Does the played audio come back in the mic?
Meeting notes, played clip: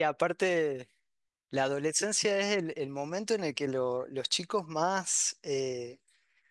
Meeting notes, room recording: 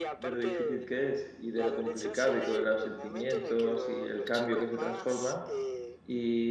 Yes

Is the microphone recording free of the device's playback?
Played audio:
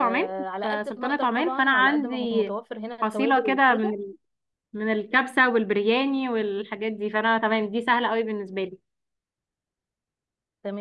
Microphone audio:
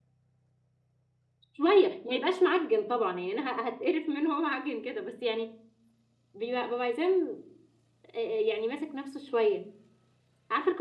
Yes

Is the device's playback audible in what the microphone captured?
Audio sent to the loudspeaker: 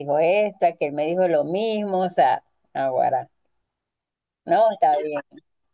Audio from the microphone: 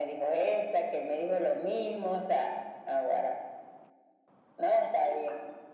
Yes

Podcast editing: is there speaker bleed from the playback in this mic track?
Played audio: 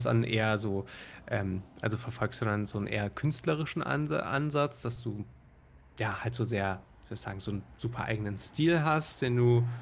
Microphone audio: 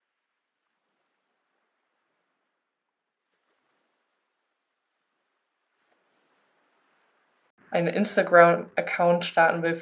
No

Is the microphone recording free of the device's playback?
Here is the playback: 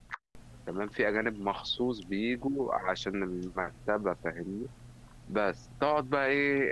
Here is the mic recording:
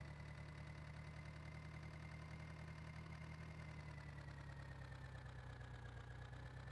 Yes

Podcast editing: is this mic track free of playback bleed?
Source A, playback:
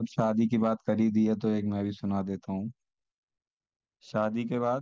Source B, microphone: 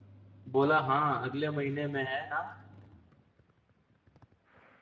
Yes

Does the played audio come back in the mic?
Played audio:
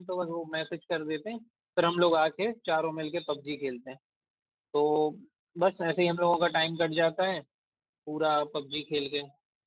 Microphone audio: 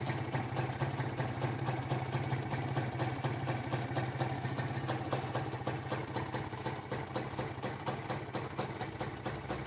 No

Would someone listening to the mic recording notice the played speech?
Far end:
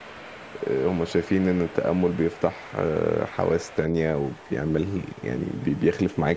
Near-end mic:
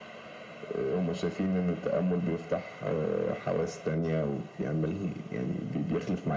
Yes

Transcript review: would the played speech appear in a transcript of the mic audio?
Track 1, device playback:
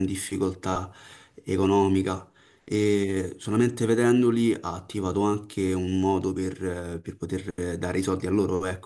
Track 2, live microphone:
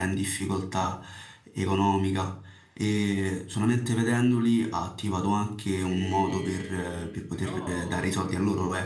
Yes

